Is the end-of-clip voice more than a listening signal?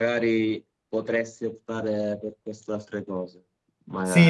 Yes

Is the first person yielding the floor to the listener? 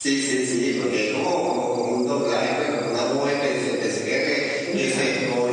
No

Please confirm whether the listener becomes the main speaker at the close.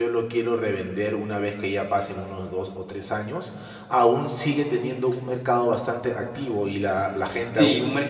Yes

